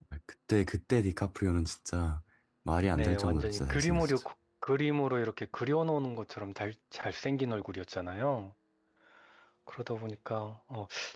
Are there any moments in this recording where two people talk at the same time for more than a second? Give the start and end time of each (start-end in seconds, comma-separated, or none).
2.9-4.2